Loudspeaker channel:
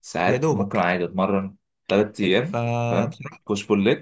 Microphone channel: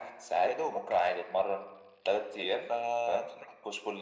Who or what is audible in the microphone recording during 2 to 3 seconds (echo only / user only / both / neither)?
echo only